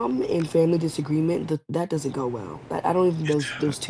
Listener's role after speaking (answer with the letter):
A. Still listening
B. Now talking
A